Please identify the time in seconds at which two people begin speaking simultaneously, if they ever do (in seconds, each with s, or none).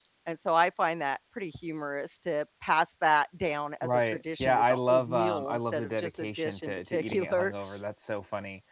3.8 s